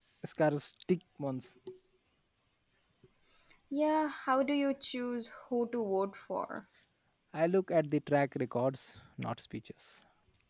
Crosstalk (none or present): none